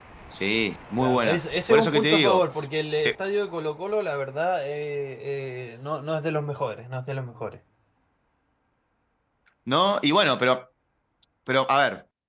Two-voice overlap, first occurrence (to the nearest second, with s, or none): 1 s